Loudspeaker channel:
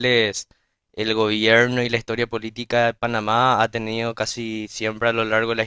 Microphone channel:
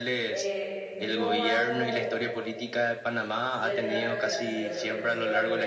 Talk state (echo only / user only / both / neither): both